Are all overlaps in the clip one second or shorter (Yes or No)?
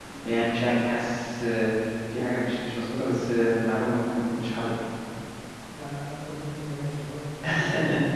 Yes